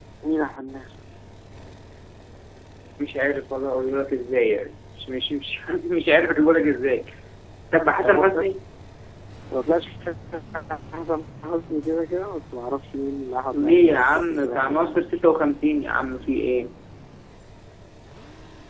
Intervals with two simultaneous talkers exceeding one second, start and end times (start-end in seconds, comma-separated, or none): 13.5-15.1